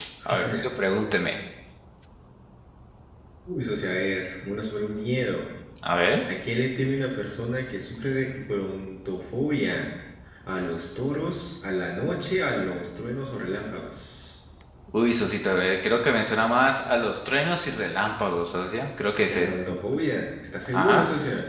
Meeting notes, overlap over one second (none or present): none